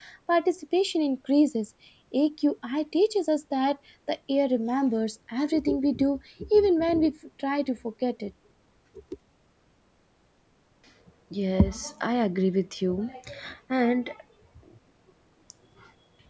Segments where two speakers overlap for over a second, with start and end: none

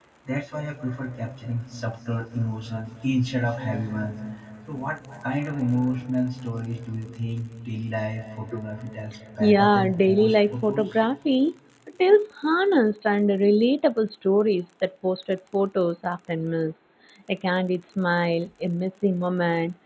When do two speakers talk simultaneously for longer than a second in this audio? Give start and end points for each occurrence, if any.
9.4-10.9

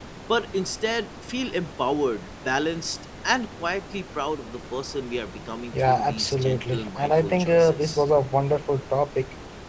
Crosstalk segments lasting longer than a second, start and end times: 5.7-8.0

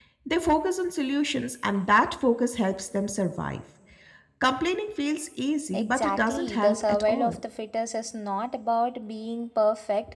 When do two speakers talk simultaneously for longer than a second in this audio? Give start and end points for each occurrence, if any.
5.7-7.4

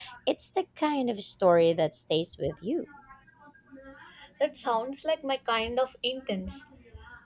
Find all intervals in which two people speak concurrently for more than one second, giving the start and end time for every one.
none

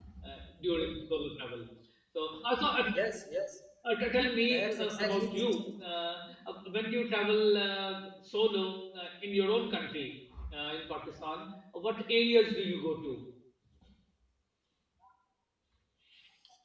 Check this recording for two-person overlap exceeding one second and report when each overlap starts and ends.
4.5-5.7

